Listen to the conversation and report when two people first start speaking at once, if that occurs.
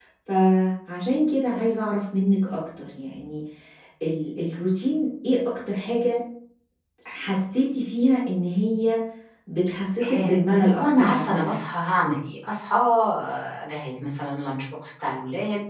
10.1 s

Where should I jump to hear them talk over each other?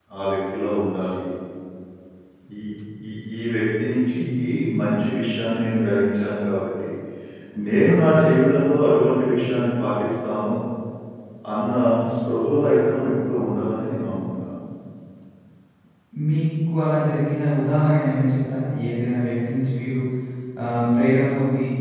none

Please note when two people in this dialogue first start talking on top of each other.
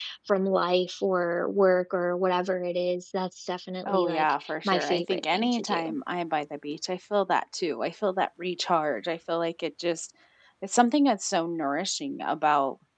3.8 s

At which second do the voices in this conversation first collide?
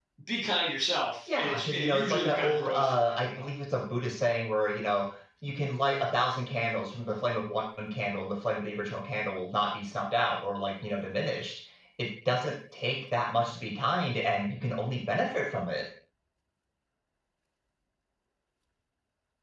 1.3 s

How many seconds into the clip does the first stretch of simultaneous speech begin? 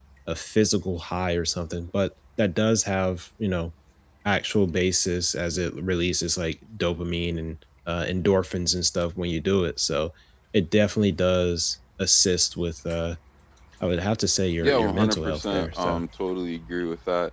14.6 s

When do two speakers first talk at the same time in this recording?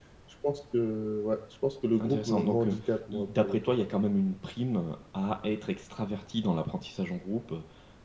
2.0 s

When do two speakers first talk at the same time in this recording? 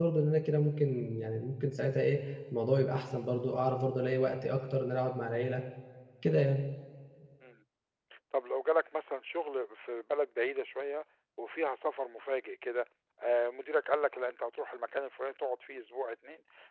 none

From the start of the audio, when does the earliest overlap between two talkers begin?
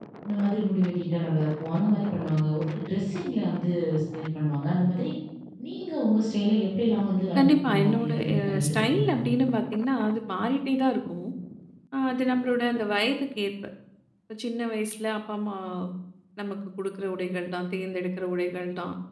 7.3 s

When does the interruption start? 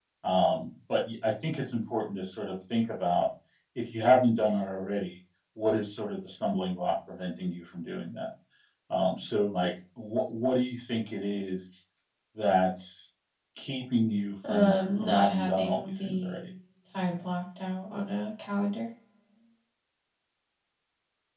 14.4 s

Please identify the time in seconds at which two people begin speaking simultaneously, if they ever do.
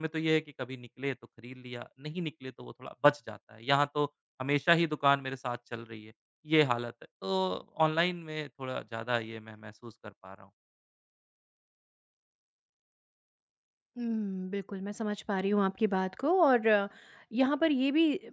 none

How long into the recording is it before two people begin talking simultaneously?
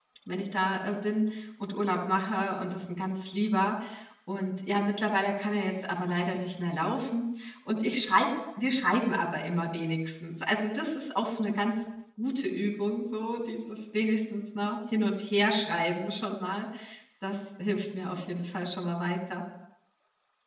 none

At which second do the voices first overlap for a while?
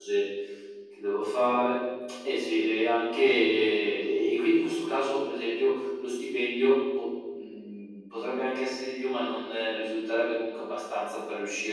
none

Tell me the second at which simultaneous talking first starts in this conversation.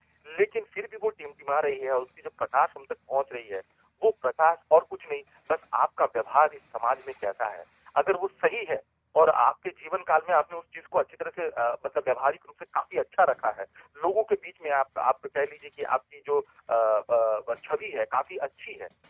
none

